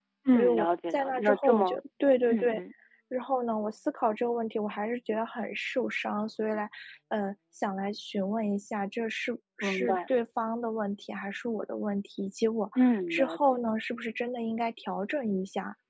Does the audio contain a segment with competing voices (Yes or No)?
Yes